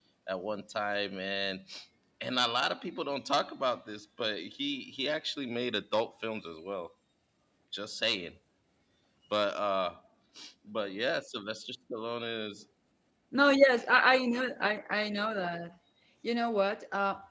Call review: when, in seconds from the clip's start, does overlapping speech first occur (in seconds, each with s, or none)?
none